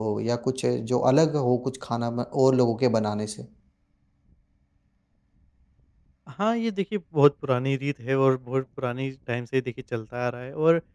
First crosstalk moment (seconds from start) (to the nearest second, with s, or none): none